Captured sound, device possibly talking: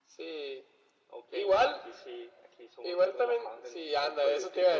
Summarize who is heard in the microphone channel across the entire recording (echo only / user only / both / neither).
echo only